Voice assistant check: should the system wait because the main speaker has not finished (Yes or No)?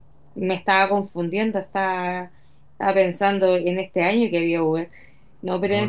Yes